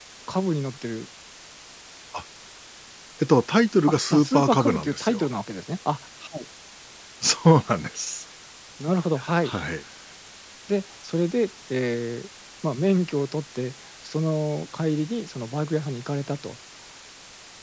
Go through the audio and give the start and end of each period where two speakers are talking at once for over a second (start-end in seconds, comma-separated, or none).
3.9-5.3